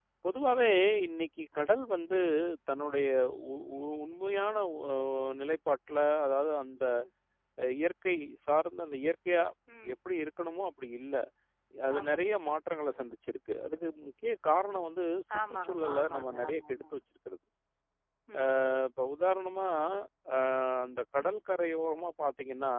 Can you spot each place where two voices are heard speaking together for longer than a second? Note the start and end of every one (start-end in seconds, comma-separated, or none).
15.4-16.8